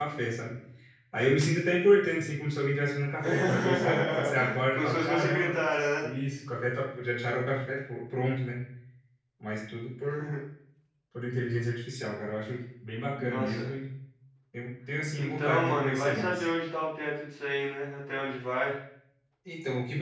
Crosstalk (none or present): present